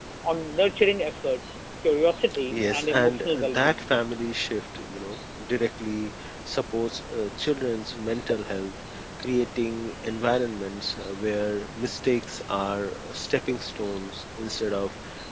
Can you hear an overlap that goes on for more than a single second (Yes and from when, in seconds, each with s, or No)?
Yes, from 2.5 s